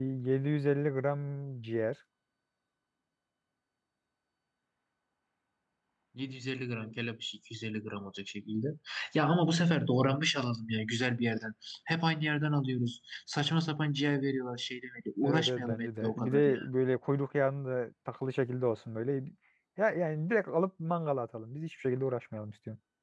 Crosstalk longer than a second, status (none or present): present